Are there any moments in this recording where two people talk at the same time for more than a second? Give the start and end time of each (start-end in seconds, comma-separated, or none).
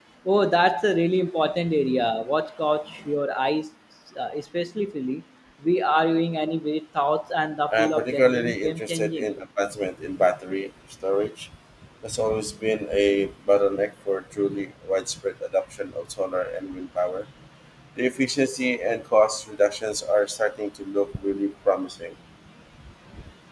7.7-9.3